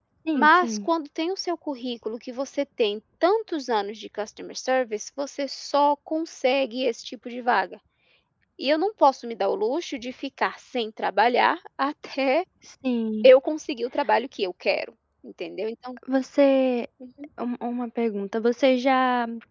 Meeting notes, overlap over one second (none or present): none